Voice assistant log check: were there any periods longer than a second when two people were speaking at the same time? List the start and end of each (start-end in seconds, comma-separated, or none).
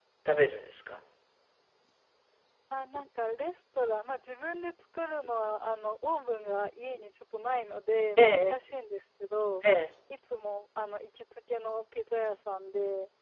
none